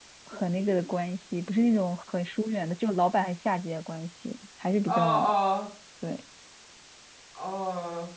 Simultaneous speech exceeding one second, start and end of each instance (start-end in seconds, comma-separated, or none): none